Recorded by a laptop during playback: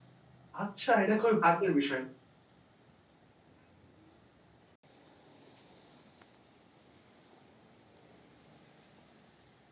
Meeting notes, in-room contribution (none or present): present